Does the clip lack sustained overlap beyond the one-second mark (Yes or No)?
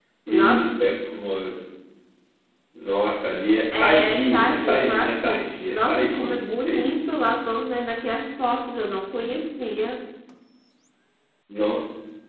No